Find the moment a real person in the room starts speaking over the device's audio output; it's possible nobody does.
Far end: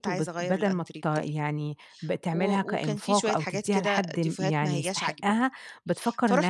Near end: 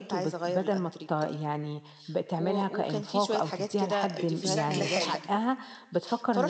4.0 s

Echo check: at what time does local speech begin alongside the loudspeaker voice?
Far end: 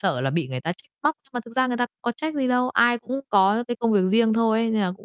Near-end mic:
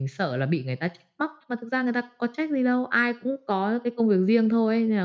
none

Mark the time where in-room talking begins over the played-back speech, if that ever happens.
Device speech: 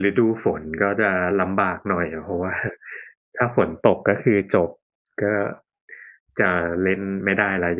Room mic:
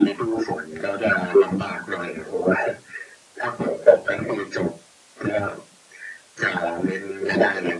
none

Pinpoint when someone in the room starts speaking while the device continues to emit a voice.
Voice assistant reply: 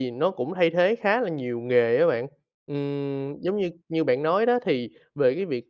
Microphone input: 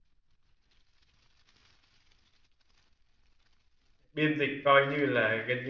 4.1 s

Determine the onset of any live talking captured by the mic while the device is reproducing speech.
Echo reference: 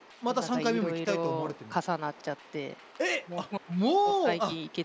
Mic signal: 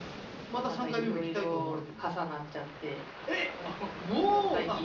none

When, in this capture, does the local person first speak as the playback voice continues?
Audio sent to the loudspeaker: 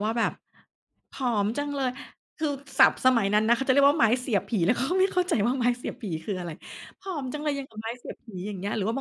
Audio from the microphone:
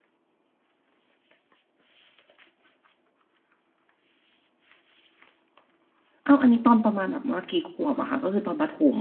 6.2 s

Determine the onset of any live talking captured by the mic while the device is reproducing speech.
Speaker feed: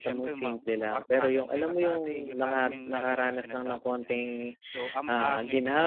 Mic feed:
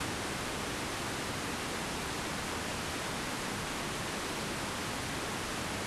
none

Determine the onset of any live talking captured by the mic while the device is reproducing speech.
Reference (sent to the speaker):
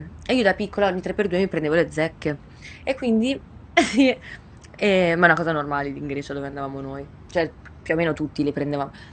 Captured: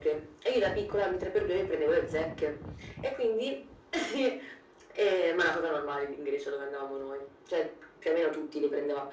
none

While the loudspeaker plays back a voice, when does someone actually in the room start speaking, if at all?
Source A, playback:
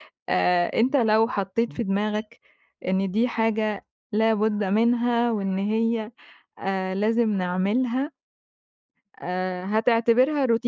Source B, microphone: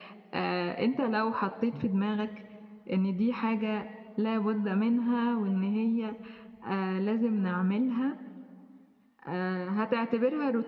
none

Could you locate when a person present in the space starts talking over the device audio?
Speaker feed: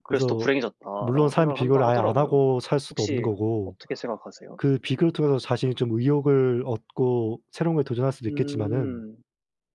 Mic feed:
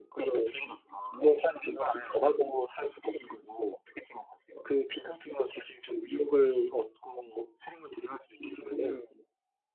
none

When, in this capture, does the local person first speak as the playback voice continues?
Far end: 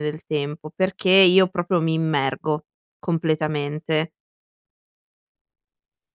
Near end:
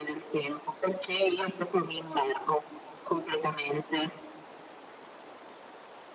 none

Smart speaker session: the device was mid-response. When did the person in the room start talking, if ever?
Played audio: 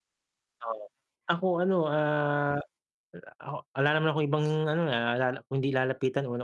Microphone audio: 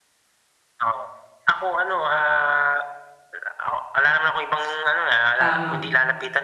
5.4 s

